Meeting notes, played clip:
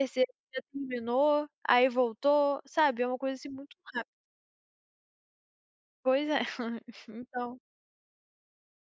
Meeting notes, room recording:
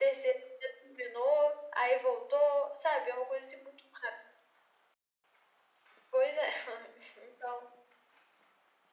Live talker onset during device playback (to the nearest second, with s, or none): none